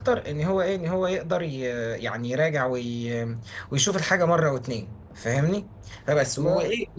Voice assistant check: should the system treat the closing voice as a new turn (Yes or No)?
No